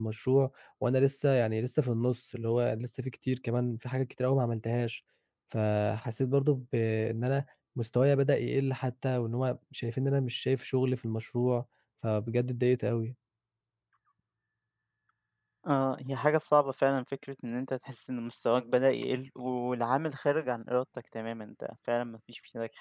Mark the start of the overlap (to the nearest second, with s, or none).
none